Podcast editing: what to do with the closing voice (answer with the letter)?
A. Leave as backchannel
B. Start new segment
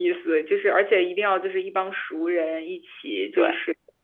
A